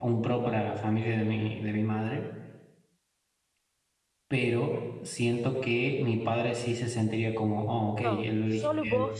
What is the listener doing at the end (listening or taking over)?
taking over